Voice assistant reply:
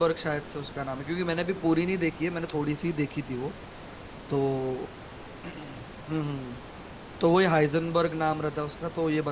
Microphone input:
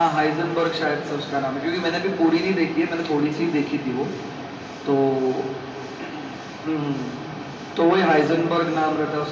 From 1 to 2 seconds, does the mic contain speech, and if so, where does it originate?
echo only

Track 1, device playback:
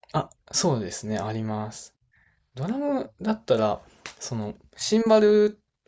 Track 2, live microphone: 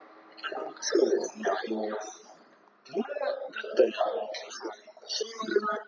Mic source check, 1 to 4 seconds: echo only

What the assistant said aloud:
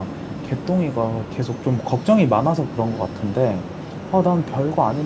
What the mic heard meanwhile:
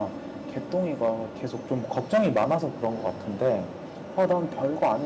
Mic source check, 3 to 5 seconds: echo only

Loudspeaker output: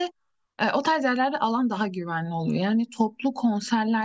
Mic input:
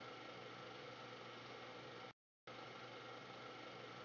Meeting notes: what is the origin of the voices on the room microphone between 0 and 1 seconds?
neither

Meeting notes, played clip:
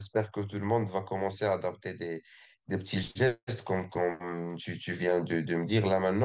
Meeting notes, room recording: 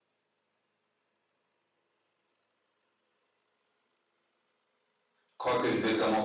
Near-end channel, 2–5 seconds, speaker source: neither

